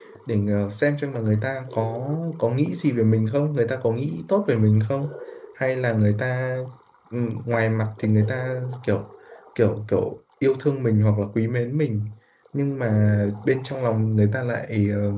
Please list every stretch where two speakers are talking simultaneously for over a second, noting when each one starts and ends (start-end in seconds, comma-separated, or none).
none